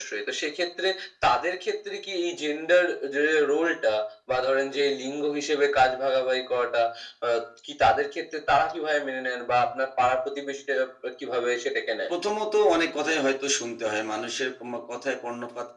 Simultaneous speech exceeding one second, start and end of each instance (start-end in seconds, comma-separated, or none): none